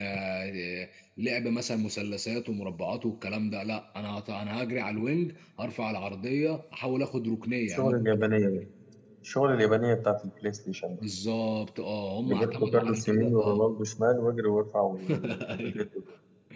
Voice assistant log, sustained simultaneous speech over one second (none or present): present